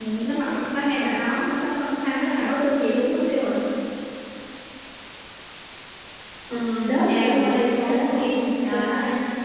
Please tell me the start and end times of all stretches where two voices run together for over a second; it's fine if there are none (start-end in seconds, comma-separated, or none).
7.1-8.9